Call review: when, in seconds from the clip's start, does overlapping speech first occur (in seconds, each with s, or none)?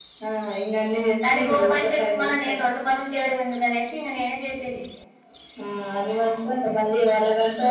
1.2 s